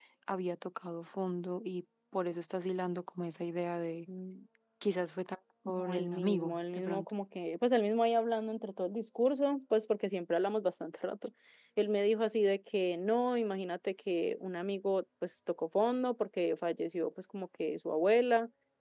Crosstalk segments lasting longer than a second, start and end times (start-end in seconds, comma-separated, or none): 5.8-7.0